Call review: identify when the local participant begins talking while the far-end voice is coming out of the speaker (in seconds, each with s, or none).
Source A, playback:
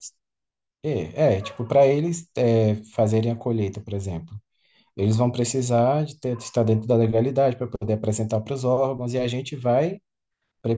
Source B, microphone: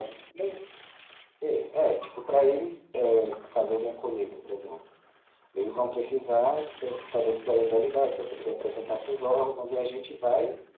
none